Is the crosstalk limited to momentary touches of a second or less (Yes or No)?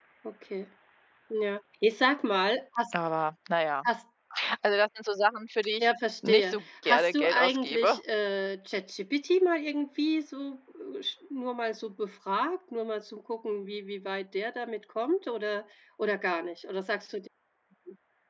No